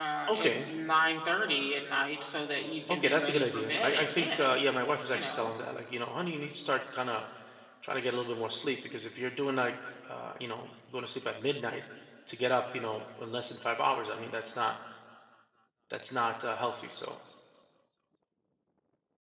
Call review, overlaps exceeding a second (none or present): present